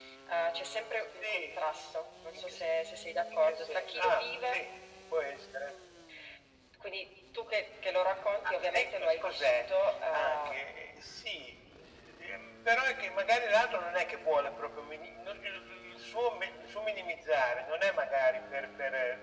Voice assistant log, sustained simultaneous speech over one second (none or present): present